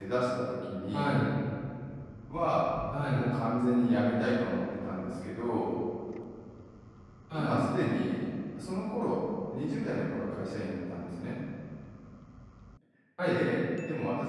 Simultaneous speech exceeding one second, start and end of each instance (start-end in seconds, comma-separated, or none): none